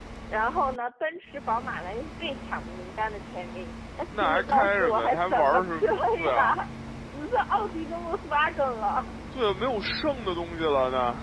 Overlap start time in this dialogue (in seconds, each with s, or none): 4.1 s